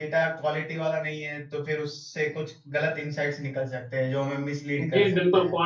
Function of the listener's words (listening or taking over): taking over